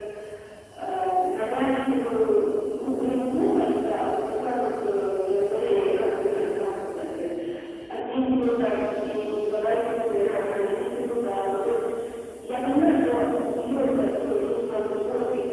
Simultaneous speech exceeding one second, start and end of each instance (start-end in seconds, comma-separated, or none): 5.4-6.8